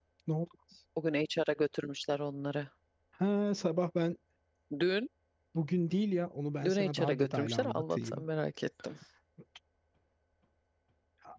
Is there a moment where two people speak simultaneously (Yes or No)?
Yes